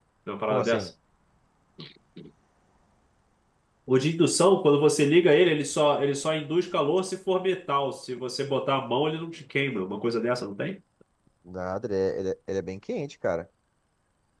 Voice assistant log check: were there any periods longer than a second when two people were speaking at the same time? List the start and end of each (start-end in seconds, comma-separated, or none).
none